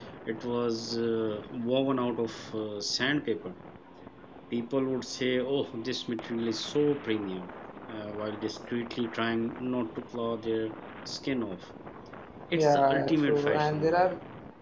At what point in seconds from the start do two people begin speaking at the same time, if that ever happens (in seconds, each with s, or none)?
12.5 s